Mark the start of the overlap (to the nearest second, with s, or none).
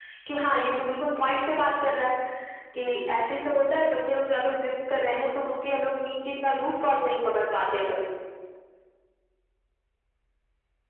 none